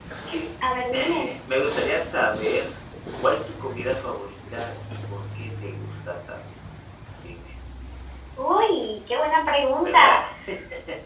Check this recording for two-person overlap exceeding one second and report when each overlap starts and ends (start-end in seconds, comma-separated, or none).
none